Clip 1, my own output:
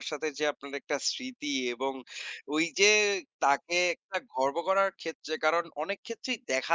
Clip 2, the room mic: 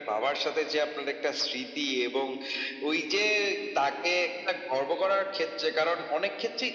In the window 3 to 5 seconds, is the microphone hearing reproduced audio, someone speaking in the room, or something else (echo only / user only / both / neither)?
echo only